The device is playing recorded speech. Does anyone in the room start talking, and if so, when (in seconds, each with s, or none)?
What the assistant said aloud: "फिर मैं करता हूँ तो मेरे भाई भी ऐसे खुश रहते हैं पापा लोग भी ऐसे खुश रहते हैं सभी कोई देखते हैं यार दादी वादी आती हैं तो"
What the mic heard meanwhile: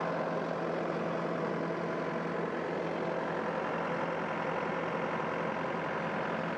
none